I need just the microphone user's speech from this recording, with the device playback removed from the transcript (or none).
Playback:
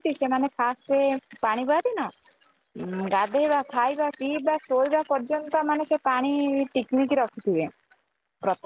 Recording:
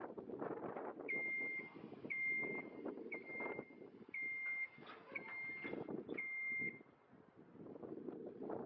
none